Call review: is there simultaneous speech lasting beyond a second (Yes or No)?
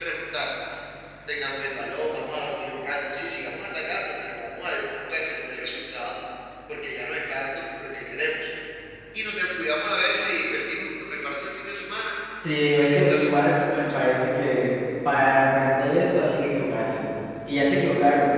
Yes